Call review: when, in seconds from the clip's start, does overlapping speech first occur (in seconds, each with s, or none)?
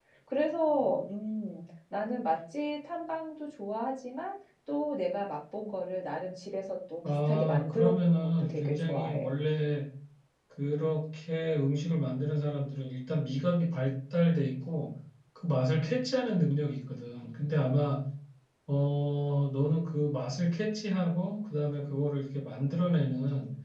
7.0 s